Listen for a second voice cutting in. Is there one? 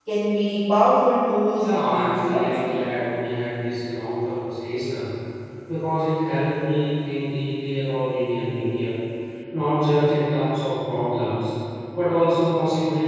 Yes, from 1.5 s

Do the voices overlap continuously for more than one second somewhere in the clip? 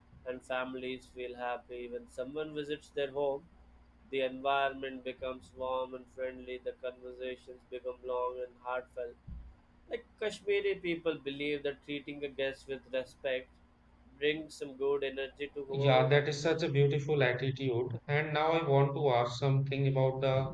No

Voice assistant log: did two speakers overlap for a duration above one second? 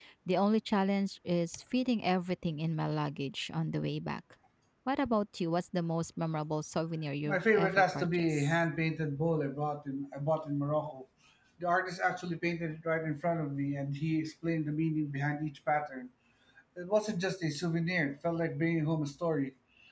Yes, from 7.2 s

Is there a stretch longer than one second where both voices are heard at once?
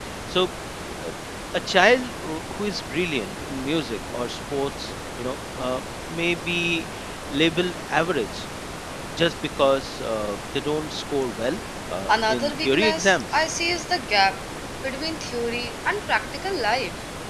Yes, from 12.1 s

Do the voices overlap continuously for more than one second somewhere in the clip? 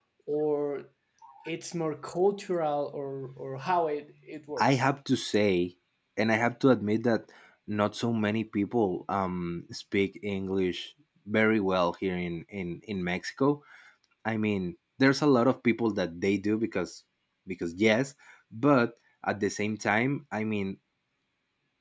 No

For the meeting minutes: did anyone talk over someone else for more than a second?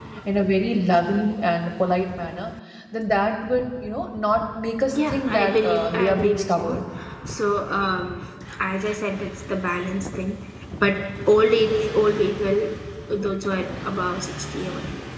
Yes, from 4.9 s

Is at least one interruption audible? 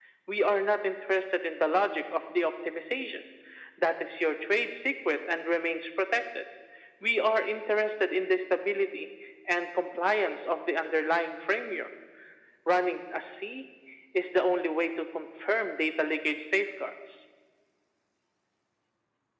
No

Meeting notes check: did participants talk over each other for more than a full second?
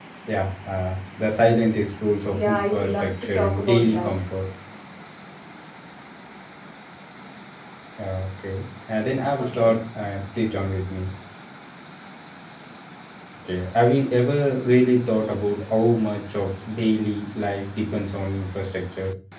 Yes, from 2.3 s

